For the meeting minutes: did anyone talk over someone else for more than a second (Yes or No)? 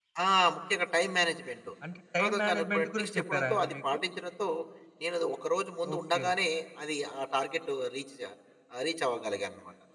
Yes